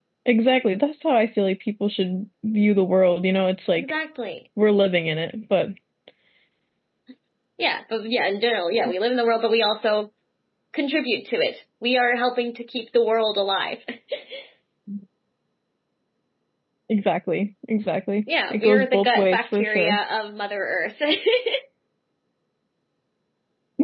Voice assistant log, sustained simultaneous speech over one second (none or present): present